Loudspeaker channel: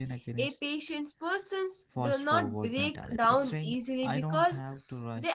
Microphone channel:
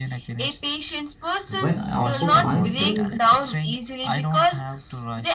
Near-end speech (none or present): present